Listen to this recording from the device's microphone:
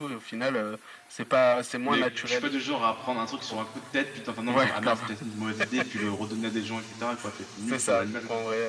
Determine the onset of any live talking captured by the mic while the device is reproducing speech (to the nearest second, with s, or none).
2 s